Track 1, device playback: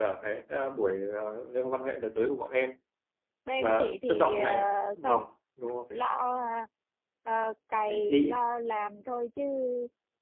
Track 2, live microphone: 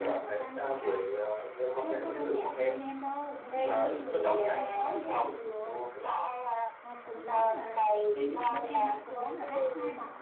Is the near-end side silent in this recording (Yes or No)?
No